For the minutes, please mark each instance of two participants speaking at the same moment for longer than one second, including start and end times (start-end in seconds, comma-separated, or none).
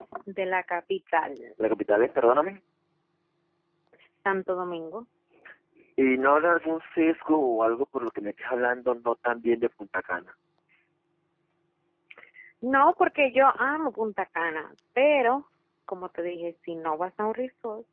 none